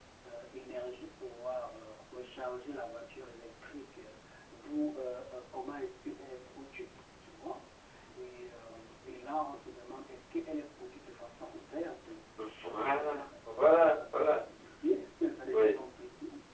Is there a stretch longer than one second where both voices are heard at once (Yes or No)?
Yes